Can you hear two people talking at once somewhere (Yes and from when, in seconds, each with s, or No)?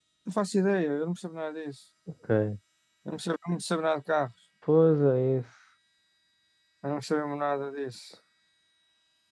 No